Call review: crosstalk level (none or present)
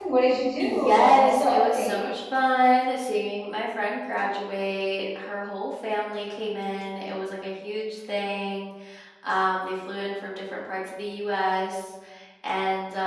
present